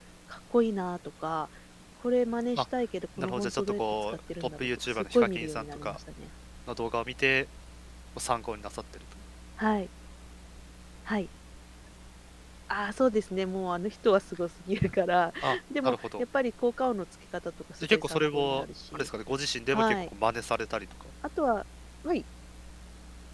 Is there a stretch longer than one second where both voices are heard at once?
Yes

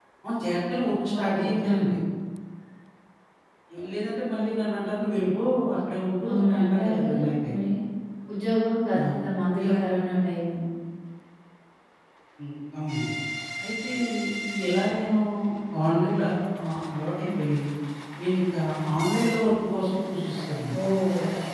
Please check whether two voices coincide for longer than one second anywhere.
Yes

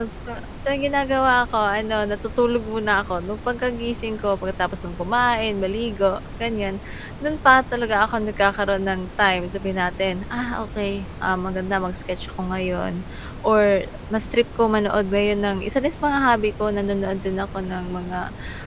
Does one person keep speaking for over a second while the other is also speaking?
No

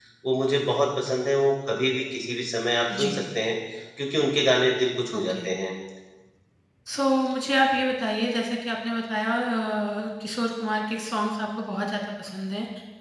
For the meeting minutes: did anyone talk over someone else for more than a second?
No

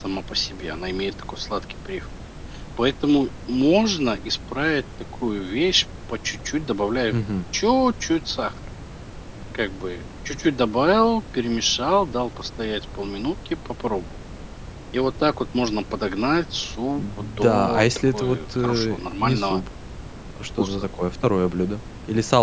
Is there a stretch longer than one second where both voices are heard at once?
Yes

